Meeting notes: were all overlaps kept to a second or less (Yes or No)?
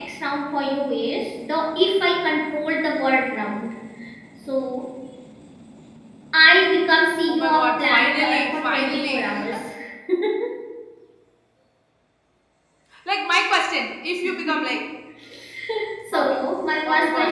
No